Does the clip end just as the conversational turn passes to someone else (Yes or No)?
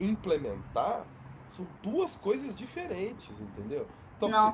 No